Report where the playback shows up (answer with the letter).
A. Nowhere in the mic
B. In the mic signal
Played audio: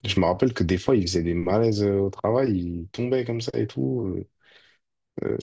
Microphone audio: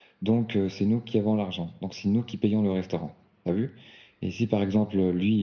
A